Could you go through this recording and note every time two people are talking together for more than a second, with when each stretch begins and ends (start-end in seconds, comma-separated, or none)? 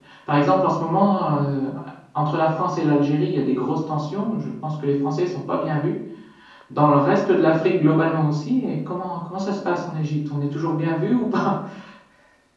none